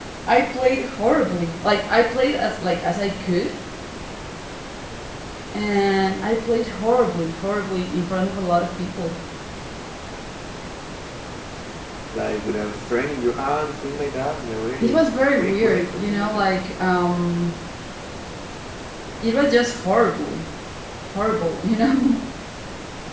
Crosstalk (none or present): present